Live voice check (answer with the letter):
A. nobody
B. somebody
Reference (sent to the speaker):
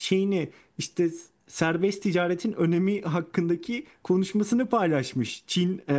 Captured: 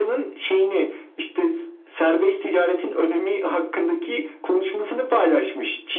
A